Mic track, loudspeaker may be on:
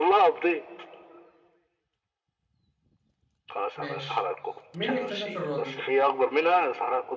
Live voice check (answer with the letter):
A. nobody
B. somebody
B